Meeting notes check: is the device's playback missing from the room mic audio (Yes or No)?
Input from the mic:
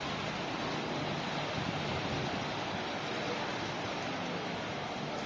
Yes